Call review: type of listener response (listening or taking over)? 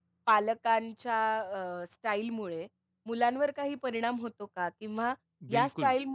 listening